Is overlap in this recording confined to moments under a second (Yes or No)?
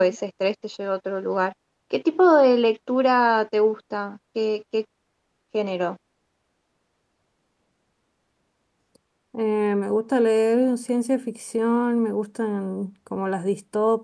Yes